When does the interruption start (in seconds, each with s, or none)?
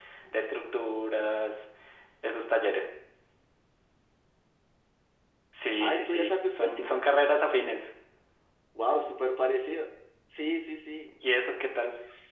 5.8 s